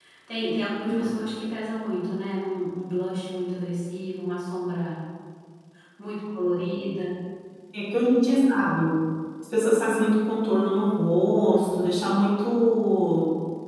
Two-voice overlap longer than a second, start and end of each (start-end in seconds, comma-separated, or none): none